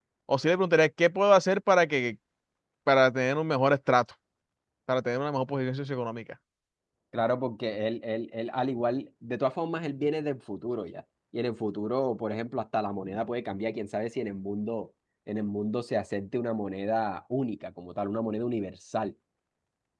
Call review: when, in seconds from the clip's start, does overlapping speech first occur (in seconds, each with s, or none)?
none